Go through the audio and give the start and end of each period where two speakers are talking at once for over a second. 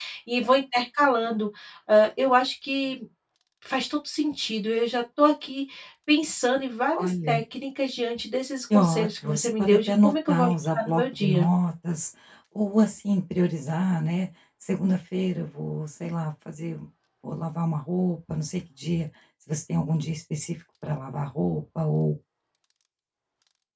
8.7-11.5

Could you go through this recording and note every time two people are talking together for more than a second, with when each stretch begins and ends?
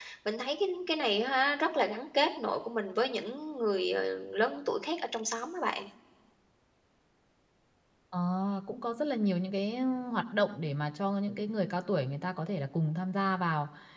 none

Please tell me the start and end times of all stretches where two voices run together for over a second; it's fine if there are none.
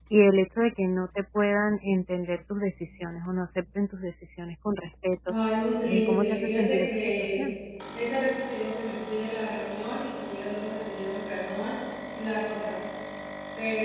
5.8-7.4

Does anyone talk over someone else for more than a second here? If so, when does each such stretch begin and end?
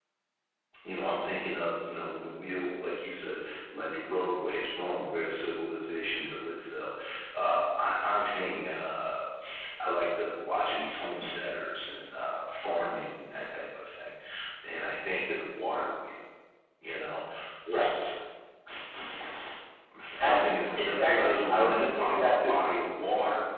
20.2-22.5

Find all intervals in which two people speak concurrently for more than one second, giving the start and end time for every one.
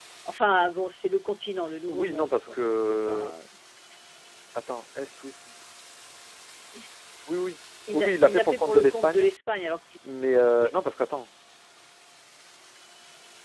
1.9-3.3, 7.9-9.3

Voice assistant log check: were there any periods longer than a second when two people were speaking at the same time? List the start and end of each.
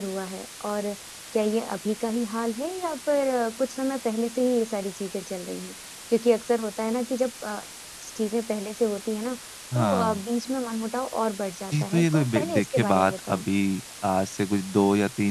11.8-13.4

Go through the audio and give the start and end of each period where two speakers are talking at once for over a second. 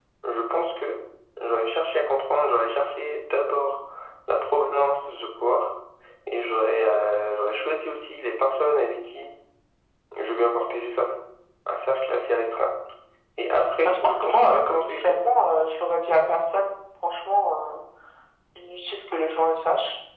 13.8-15.2

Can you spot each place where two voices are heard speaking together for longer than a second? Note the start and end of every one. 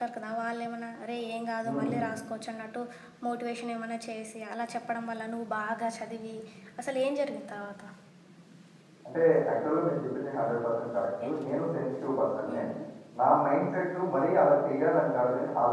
none

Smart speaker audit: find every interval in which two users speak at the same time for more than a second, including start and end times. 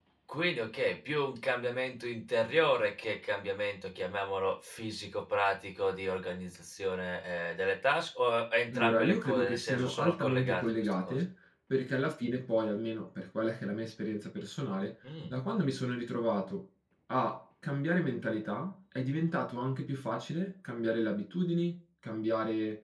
8.7-11.2

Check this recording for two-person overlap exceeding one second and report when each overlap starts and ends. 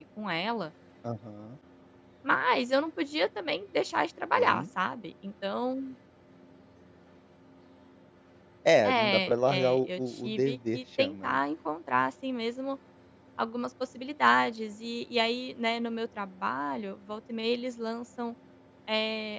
8.8-11.4

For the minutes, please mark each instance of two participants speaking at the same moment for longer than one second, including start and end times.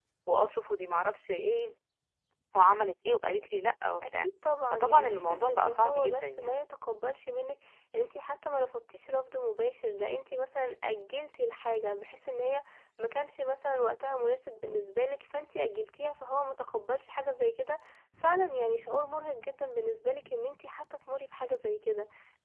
4.7-6.6

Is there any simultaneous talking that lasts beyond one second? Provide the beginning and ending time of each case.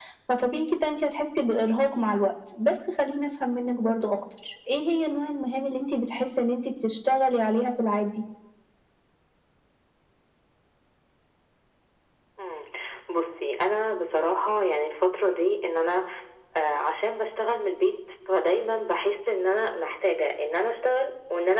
none

